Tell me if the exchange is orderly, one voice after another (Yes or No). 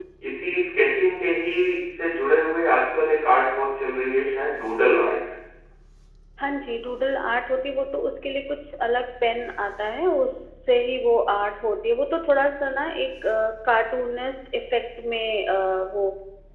Yes